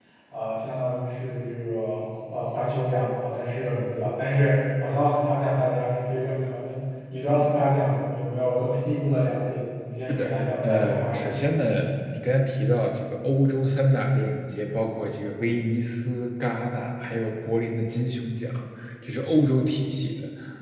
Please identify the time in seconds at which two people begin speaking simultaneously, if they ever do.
10.1 s

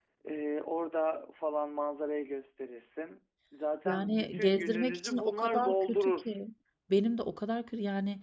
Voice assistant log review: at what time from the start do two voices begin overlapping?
3.9 s

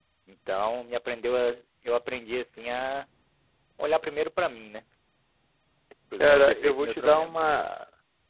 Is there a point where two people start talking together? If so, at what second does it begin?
6.2 s

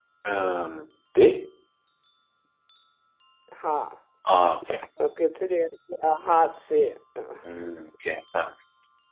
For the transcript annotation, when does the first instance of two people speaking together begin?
none

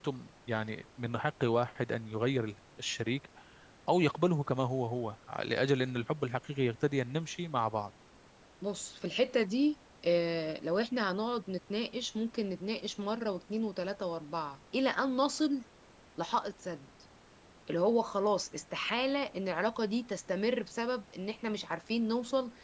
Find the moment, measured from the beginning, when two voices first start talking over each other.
none

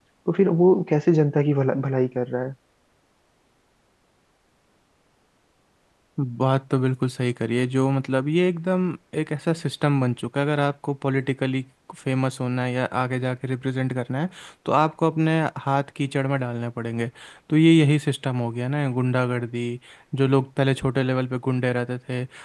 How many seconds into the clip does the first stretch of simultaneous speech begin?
none

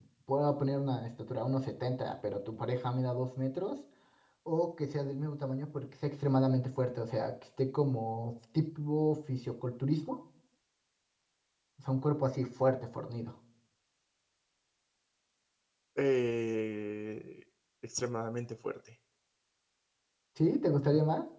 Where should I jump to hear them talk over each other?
none

